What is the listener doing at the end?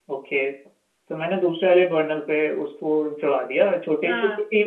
listening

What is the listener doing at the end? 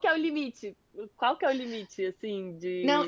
taking over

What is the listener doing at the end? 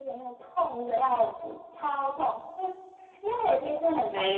listening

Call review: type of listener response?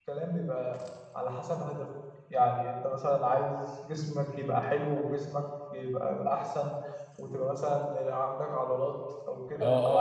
taking over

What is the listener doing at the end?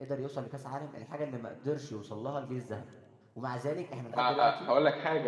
taking over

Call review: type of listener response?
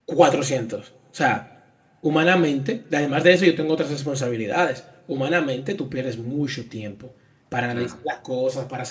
listening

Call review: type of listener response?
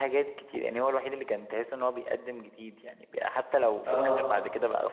listening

